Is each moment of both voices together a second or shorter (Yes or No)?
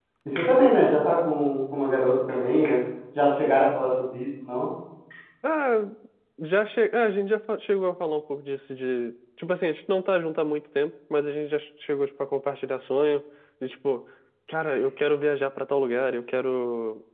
Yes